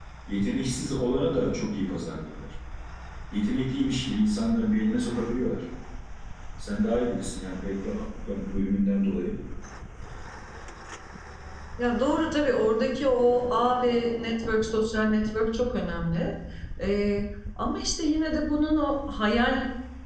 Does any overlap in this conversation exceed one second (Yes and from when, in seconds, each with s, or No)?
No